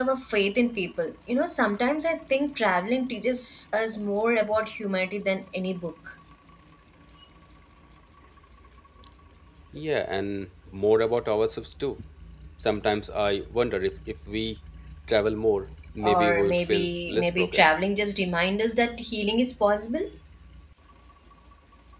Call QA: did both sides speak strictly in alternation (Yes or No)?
No